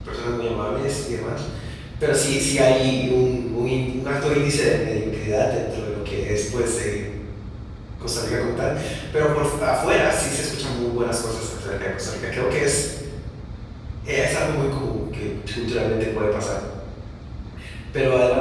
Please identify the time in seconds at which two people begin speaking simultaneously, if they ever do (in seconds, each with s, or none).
none